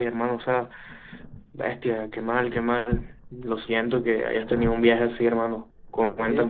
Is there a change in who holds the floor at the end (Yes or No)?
Yes